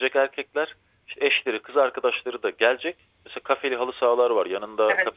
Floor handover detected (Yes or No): No